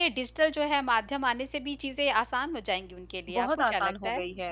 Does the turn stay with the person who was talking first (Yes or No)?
No